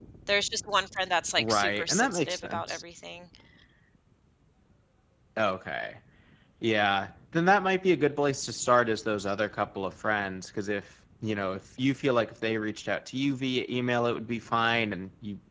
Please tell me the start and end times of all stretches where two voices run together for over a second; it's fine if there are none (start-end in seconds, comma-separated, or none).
1.4-2.8